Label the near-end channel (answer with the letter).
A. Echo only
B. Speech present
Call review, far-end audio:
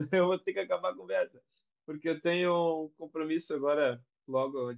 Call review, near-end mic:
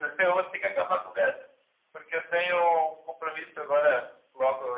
A